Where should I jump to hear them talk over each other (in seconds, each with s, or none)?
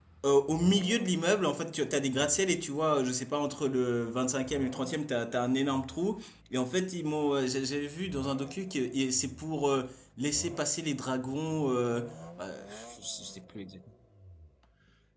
none